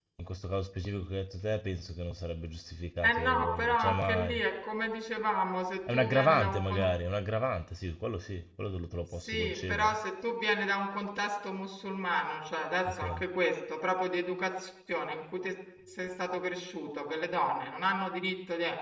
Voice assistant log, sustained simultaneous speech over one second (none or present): present